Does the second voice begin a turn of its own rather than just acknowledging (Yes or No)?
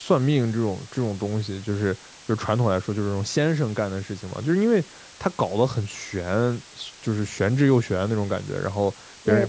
No